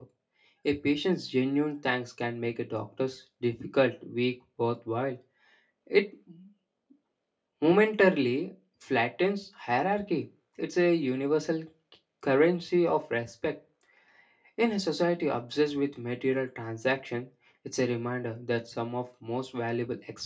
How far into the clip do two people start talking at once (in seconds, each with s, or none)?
none